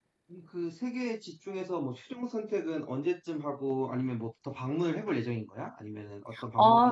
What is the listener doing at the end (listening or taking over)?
taking over